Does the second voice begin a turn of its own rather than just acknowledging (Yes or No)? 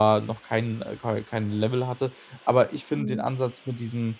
No